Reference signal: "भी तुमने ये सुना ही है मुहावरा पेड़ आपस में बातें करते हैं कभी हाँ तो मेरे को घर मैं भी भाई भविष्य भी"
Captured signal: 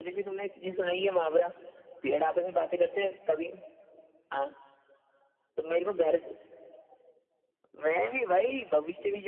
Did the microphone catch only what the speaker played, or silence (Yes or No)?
Yes